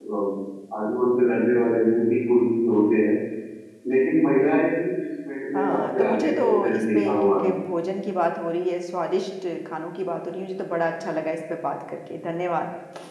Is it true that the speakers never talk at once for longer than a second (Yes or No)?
No